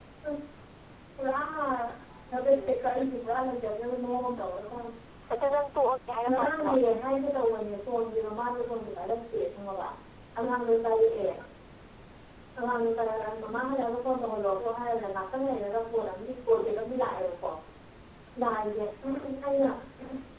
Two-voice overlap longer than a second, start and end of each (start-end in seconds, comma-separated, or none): none